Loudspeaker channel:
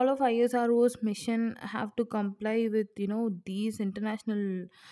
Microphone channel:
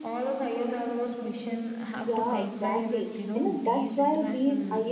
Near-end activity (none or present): present